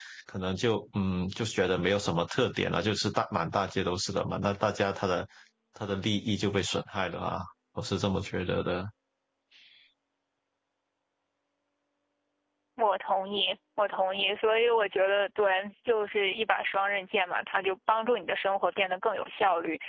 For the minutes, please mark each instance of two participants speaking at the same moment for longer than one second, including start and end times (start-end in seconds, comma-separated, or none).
none